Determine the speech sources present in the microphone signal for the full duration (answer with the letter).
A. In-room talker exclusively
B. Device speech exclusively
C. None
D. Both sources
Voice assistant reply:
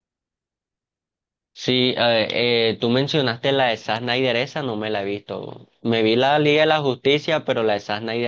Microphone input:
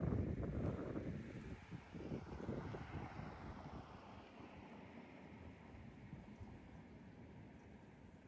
C